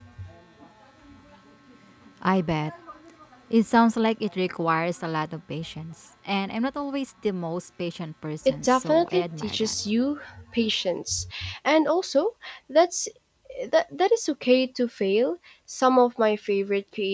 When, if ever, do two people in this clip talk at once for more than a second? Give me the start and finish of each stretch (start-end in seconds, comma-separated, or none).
8.4-9.8